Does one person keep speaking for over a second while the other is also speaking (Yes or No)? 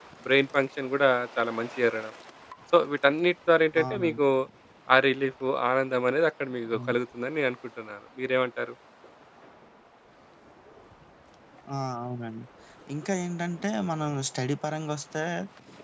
No